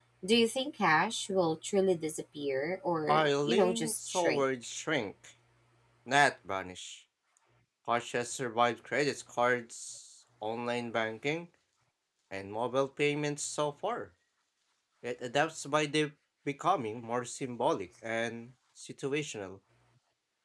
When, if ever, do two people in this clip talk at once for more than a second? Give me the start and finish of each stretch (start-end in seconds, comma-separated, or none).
3.1-4.4